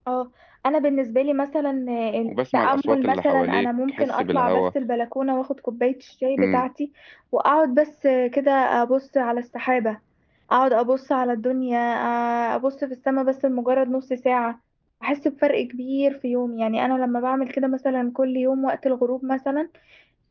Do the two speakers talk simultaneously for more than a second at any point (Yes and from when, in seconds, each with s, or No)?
Yes, from 2.3 s